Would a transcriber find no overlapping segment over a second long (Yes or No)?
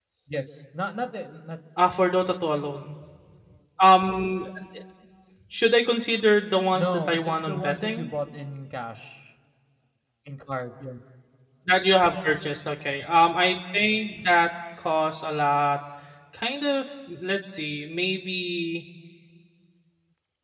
No